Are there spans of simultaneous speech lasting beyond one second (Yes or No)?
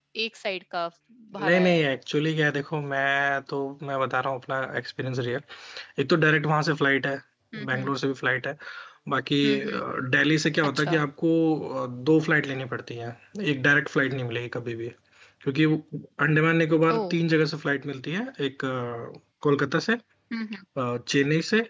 No